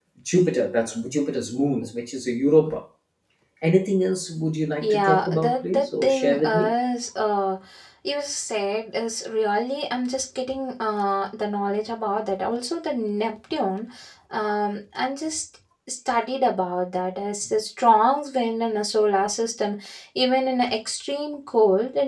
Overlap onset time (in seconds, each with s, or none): 4.8 s